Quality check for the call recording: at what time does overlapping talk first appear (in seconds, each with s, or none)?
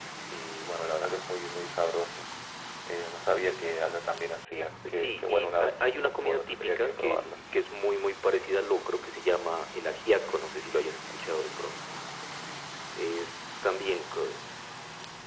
4.8 s